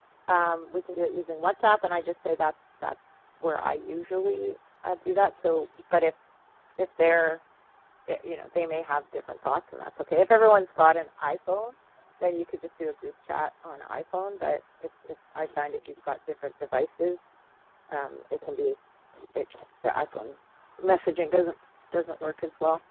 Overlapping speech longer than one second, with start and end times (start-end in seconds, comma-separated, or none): none